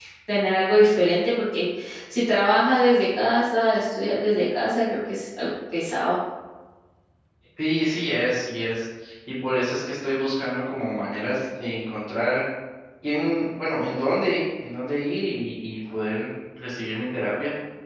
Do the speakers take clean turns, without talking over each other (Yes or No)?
Yes